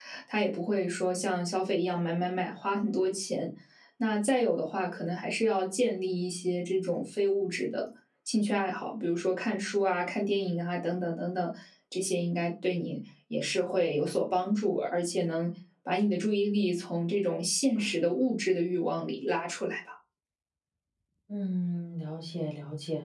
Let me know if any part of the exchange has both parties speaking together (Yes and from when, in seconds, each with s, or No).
No